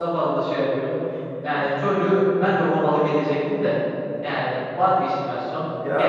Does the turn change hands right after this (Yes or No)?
No